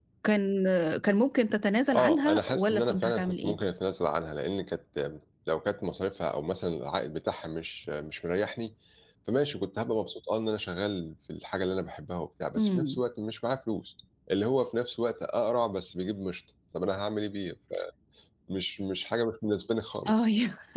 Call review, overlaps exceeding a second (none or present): present